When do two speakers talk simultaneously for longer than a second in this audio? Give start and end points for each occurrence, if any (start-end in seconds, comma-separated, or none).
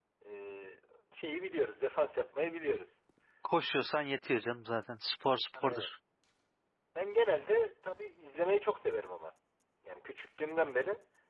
none